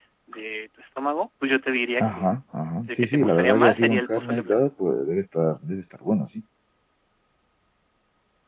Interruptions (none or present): present